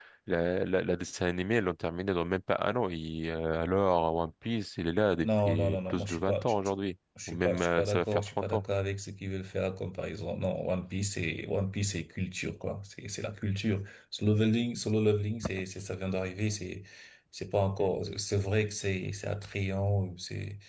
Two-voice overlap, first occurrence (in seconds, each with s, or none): 5.2 s